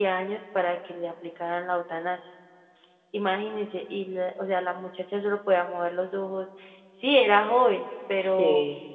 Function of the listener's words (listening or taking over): listening